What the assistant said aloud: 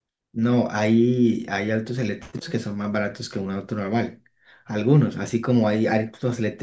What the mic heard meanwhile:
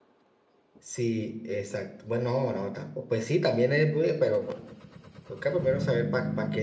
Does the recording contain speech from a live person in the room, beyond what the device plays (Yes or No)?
Yes